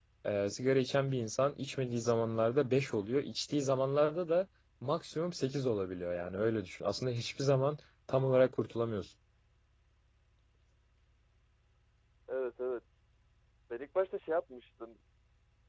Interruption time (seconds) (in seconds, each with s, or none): none